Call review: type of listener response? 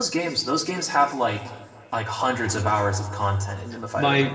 taking over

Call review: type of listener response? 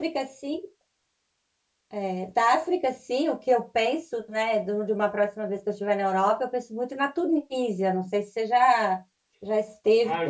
taking over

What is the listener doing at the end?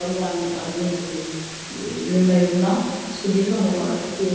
listening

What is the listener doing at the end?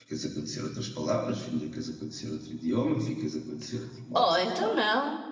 taking over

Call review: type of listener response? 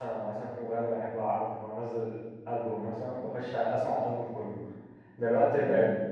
listening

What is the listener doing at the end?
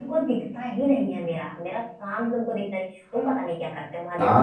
taking over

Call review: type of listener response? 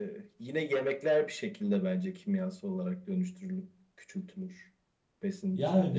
taking over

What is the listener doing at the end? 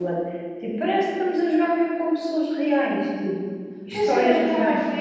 taking over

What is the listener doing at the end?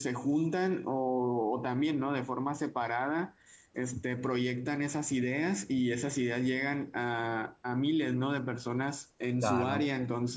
listening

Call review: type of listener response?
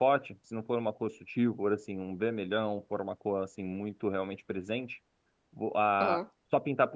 listening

